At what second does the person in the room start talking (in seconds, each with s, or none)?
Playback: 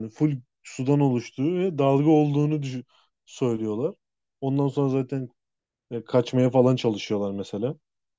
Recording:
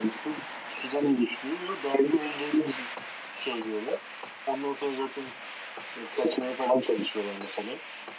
none